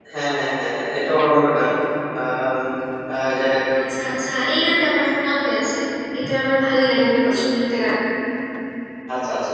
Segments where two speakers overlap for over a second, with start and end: none

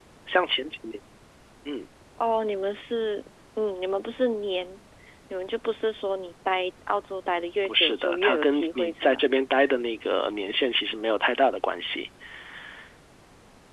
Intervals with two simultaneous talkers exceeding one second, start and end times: 7.6-9.2

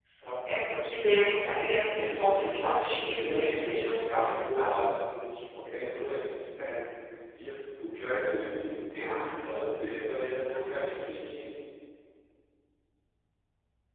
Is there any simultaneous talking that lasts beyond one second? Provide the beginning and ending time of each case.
2.0-4.9

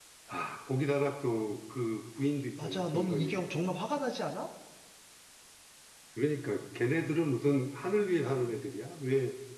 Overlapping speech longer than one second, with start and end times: 2.6-3.8

